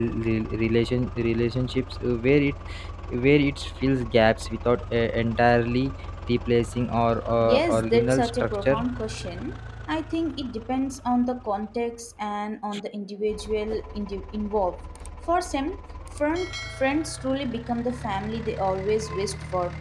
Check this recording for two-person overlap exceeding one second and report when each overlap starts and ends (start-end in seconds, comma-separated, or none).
7.4-8.8